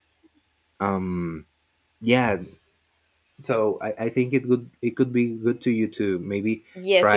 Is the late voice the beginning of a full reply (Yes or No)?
Yes